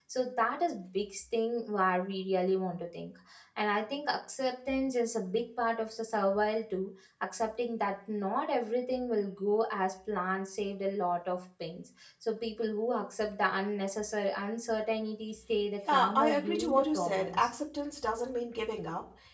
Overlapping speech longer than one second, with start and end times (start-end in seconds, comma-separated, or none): 15.9-17.5